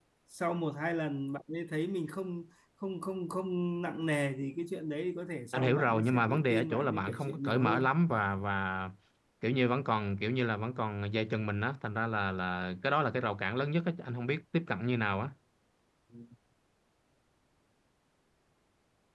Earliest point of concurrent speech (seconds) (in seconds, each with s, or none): 5.5 s